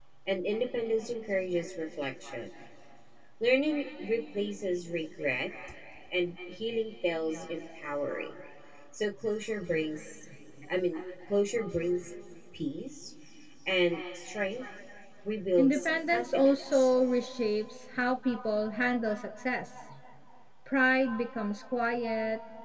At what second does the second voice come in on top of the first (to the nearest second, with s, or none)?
16 s